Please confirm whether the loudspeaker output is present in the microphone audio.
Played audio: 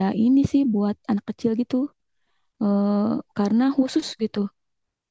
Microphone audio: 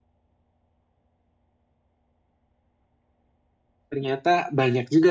No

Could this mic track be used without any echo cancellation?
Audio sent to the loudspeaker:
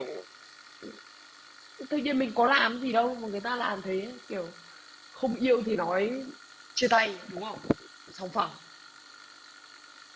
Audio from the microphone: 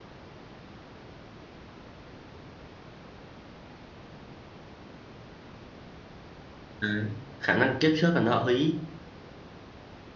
Yes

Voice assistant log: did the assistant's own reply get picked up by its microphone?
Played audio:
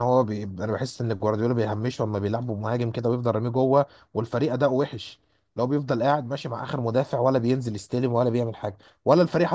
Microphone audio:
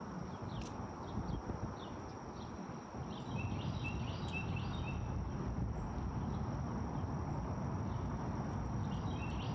No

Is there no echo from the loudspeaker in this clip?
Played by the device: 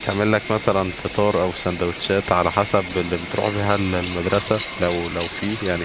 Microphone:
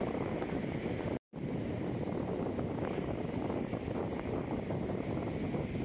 Yes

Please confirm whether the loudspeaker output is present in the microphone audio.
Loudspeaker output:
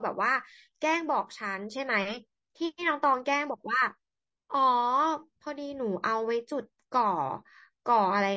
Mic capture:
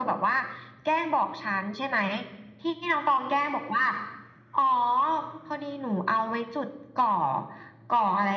Yes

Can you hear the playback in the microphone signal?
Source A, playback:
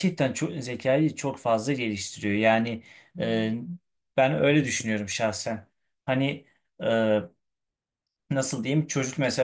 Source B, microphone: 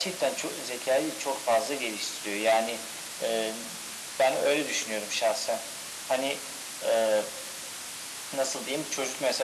Yes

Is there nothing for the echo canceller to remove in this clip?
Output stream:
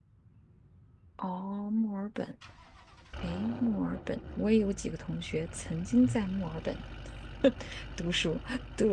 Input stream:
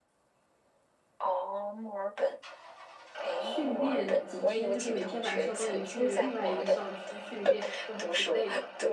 No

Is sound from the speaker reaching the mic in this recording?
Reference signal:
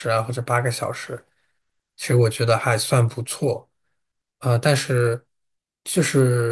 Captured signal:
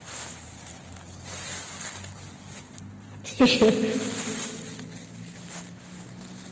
No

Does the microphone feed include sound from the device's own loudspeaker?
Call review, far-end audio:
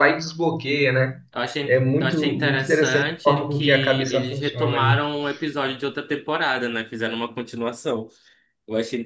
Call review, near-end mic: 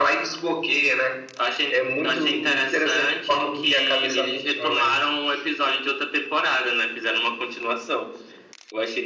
Yes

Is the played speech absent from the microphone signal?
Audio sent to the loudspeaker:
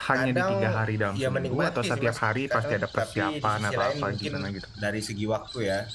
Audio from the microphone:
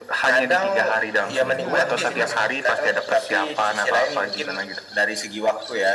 No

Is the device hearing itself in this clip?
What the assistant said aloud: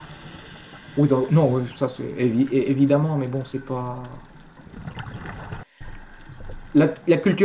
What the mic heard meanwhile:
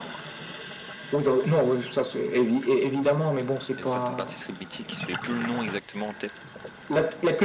Yes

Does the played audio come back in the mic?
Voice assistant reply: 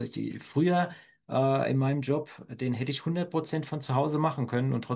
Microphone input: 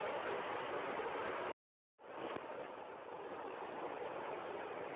No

